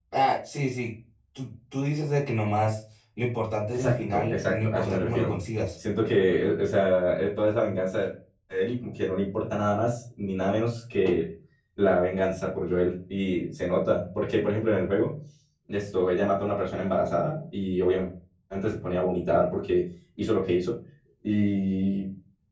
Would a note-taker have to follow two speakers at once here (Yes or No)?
Yes